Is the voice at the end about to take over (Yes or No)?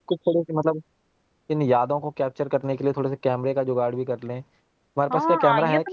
Yes